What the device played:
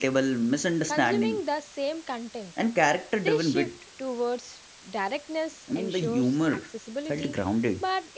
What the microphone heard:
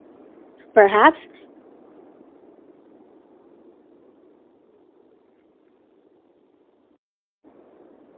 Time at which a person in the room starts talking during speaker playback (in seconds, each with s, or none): 0.7 s